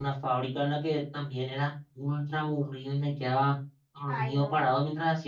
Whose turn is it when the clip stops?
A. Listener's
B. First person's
B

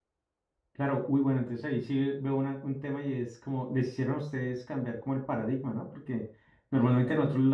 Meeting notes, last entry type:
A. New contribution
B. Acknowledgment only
B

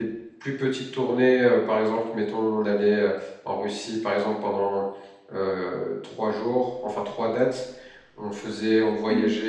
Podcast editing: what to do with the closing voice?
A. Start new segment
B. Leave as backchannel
B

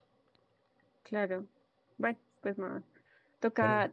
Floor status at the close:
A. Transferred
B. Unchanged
B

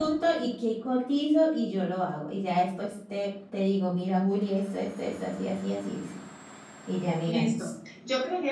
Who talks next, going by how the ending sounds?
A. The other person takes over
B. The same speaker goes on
A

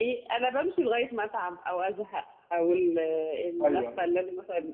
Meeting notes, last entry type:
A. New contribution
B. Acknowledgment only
B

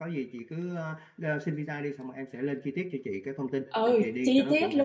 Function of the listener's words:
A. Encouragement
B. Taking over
B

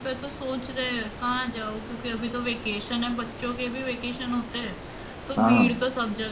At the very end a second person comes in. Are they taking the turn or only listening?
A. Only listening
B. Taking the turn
A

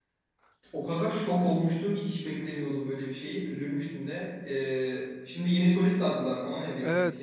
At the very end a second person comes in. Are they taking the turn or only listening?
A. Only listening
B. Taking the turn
B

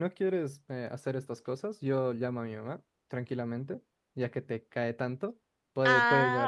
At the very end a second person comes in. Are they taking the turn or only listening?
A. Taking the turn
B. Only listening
A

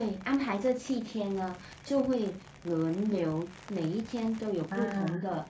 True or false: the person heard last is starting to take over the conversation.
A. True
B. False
B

